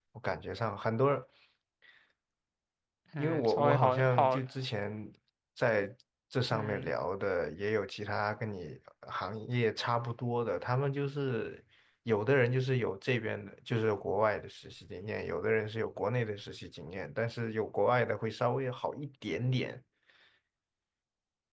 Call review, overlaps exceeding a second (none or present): present